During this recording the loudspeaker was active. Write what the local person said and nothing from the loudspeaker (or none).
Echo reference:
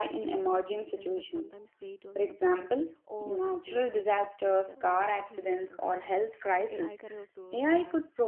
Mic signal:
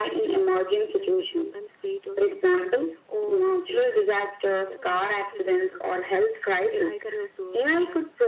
none